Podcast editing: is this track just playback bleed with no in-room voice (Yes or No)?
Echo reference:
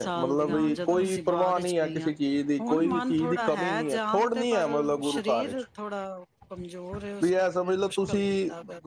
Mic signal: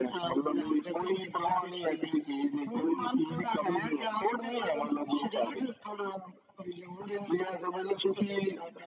Yes